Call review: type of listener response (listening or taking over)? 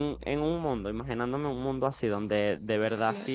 listening